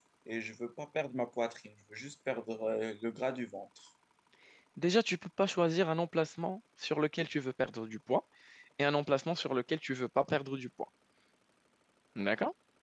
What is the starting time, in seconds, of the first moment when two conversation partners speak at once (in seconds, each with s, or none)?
none